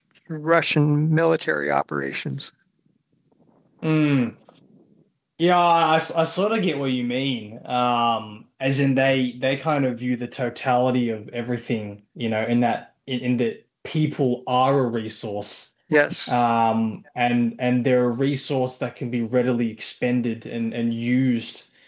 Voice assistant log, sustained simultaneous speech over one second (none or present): none